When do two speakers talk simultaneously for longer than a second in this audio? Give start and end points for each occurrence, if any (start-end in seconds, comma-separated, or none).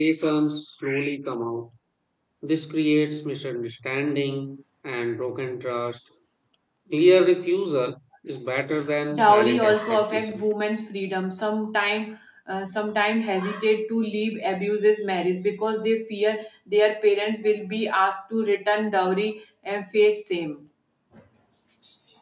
9.1-10.4